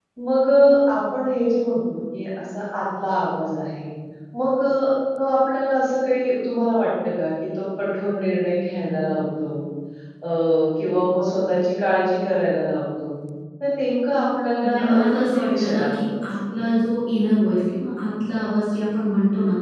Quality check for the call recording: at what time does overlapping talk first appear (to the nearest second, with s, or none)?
15 s